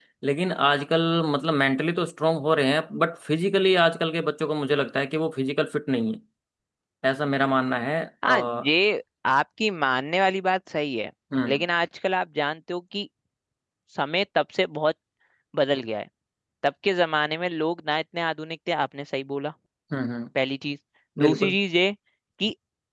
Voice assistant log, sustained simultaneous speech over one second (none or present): none